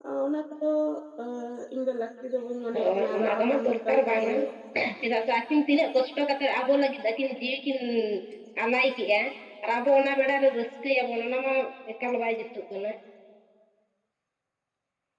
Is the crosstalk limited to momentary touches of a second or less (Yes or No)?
No